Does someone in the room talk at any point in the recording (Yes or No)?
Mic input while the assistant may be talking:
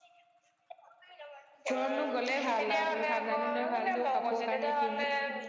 Yes